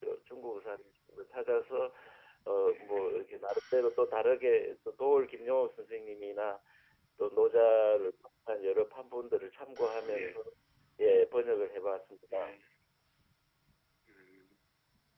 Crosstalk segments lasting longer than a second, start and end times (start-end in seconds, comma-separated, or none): none